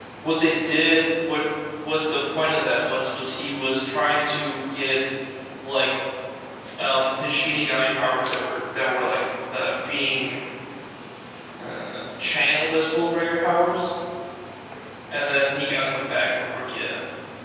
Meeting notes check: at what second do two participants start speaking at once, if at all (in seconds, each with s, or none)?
none